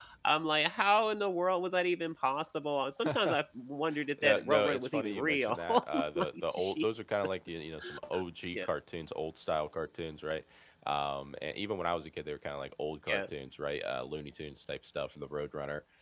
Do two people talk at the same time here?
Yes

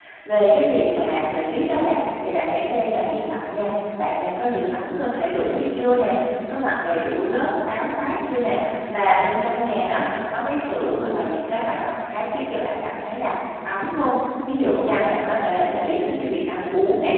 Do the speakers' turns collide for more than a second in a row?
No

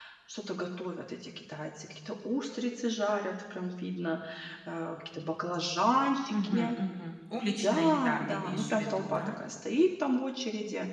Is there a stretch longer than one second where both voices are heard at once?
Yes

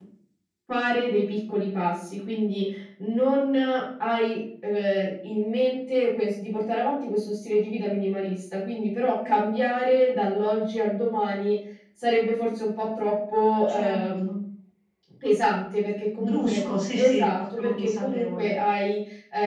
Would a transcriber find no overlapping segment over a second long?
No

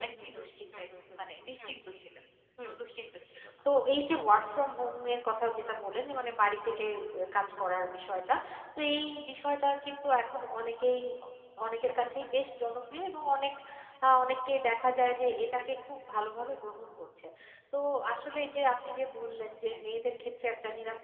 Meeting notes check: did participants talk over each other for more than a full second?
Yes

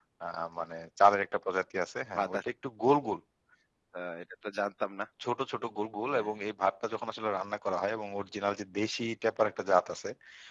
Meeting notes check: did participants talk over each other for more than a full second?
No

